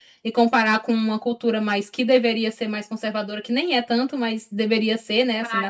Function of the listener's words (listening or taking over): listening